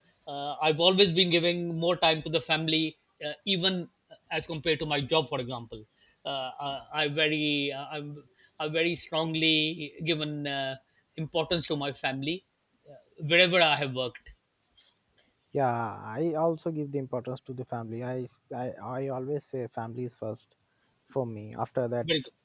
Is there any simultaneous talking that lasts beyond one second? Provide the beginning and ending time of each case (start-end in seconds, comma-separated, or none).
none